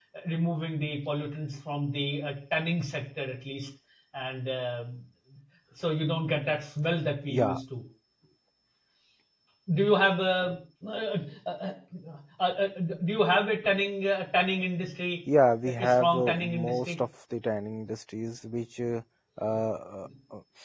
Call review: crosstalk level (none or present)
present